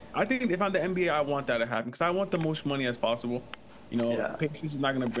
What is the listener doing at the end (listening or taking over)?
listening